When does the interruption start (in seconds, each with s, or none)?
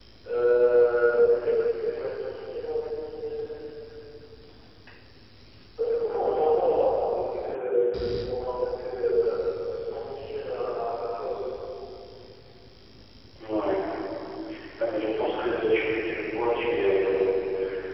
none